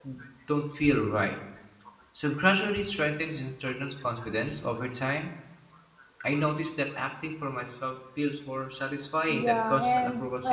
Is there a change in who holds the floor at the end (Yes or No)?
Yes